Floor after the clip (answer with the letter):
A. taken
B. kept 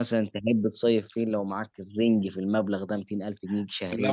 A